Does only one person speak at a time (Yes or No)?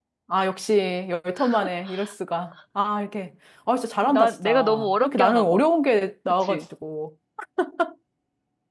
No